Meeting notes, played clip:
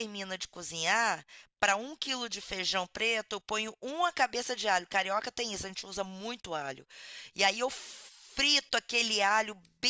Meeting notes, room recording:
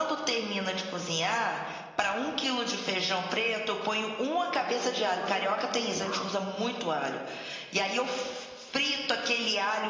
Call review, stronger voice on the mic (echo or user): echo